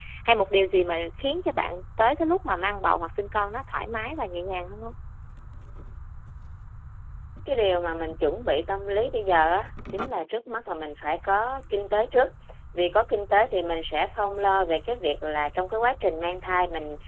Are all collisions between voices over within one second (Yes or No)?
Yes